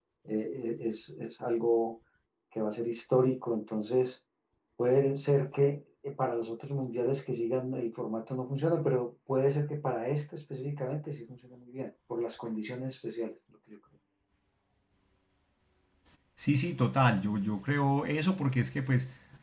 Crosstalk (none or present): none